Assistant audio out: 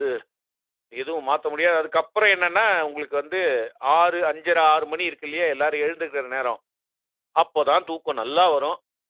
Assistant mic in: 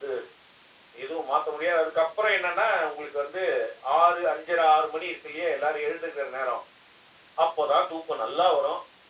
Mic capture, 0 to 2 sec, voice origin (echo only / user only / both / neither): echo only